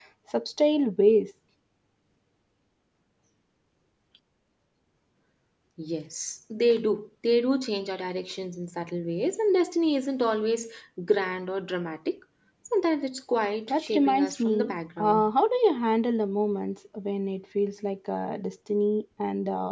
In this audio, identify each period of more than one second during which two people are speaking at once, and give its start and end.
13.7-15.3

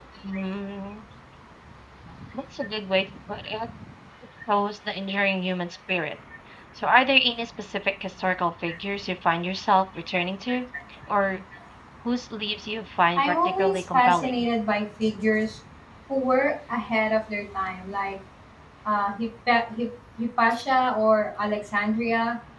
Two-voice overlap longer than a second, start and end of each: 13.2-14.4

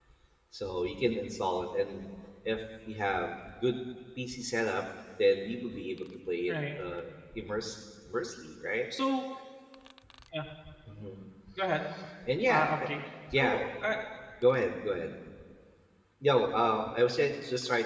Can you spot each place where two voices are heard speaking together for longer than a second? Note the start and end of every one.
none

